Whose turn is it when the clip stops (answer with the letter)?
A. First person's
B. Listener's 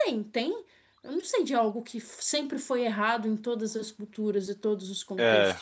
B